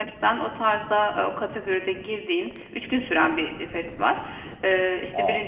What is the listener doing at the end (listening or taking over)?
listening